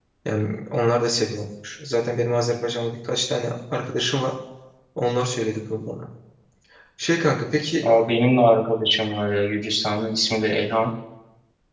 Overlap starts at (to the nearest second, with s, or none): none